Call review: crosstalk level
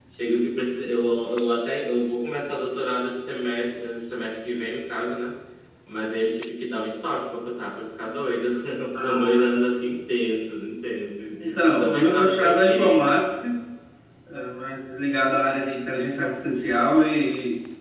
present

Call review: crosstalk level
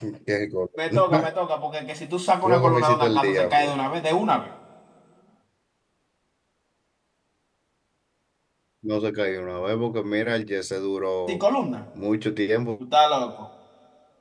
present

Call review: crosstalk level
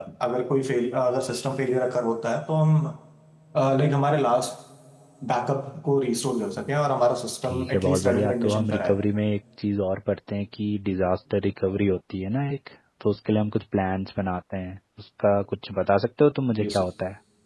present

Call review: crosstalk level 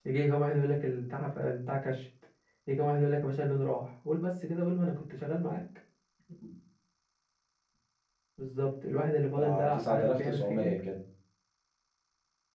present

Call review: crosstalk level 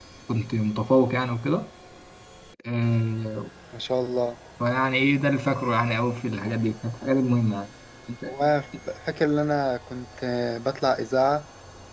none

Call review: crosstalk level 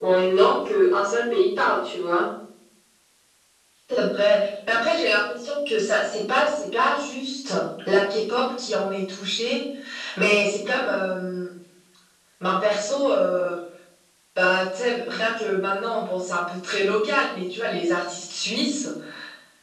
none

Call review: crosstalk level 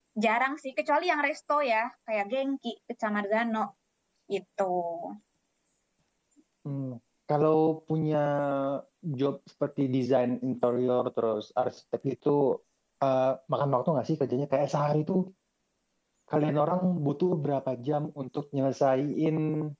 none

